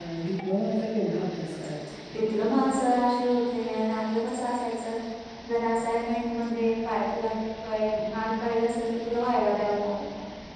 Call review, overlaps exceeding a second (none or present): none